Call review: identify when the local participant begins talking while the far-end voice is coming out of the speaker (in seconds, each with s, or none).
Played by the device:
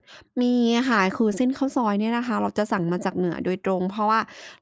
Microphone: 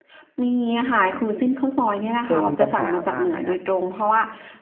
2.2 s